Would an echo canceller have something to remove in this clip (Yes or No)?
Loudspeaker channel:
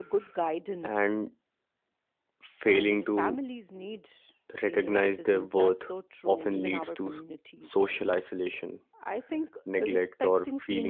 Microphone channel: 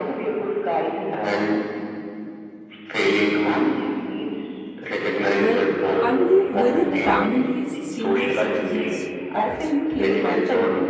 Yes